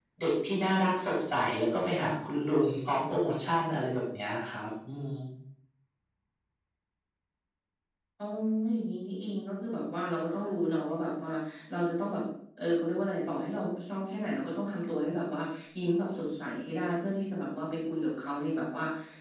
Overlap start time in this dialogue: none

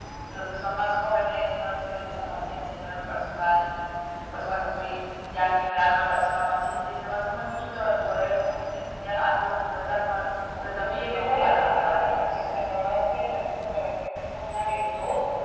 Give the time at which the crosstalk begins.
11 s

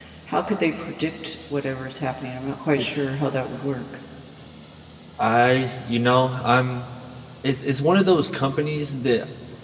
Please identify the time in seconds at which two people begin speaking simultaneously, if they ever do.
none

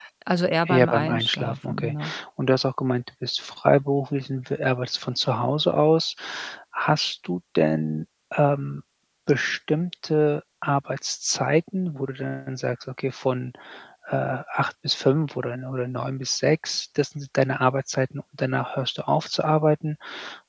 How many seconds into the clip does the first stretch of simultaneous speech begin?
1 s

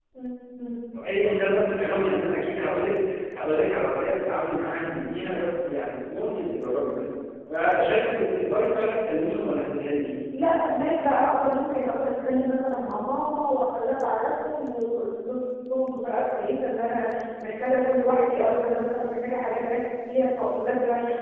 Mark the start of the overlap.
none

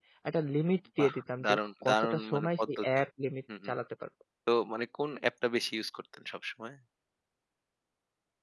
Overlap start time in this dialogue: 1 s

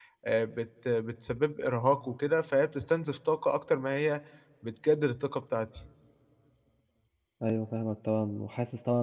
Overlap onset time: none

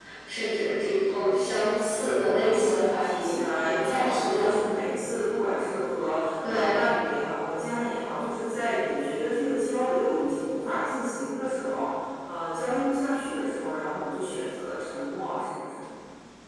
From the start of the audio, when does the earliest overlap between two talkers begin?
2 s

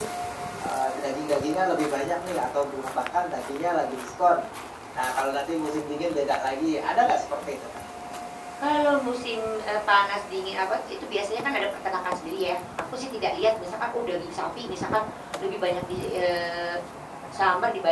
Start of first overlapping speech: none

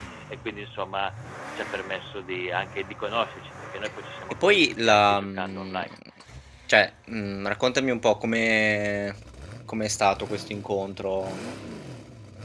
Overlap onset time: 4 s

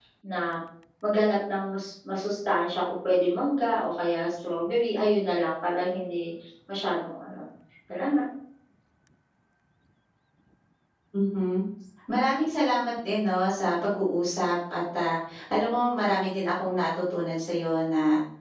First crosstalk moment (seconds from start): none

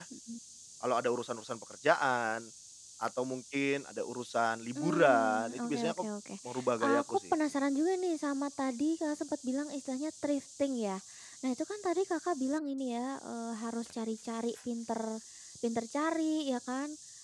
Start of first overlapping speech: 5 s

